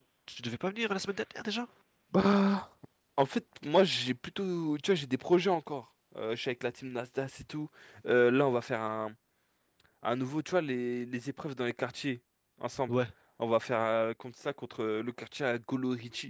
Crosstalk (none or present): none